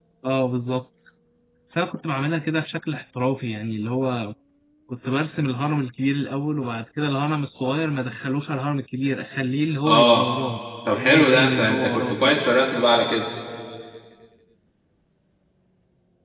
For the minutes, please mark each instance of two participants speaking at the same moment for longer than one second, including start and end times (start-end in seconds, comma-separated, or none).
10.9-12.4